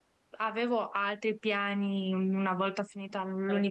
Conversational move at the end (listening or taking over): listening